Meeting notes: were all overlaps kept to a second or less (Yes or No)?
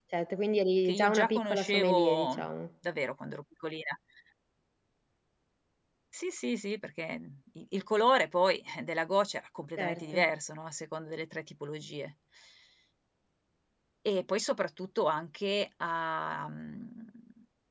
No